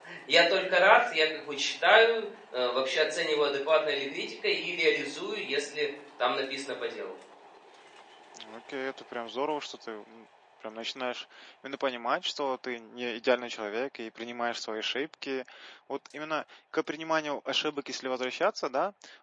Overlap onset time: none

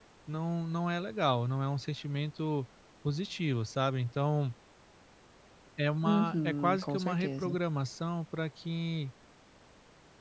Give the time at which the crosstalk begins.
6 s

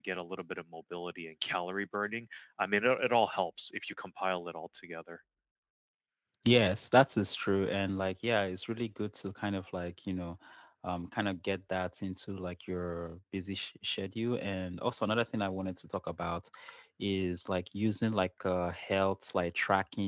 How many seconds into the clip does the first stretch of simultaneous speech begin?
none

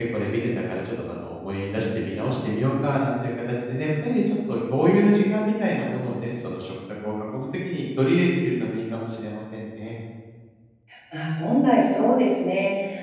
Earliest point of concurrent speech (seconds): none

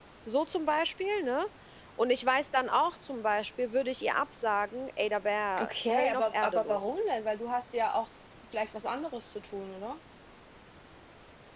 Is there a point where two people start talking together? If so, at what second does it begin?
6 s

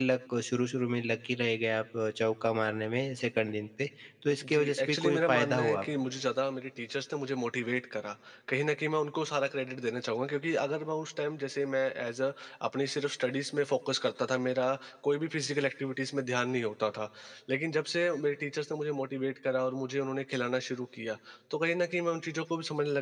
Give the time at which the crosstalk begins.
4 s

